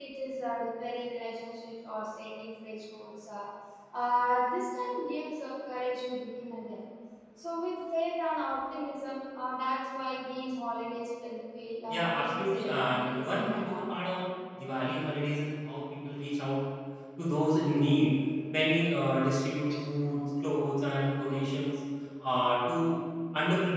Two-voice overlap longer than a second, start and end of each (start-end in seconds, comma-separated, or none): 11.9-13.8